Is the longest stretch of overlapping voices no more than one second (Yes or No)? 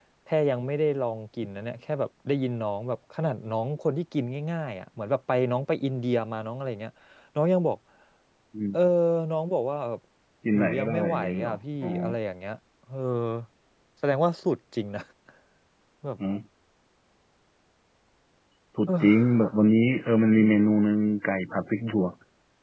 No